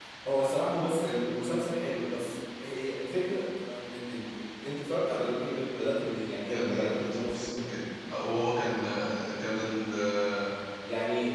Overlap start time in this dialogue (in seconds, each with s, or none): 6.5 s